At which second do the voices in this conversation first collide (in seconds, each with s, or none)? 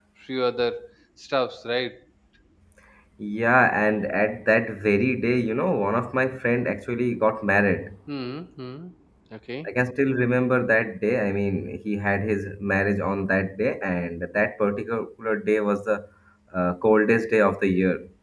none